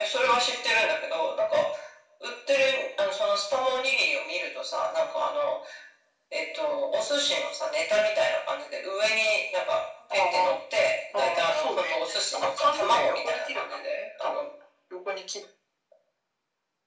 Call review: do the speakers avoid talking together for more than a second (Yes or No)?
No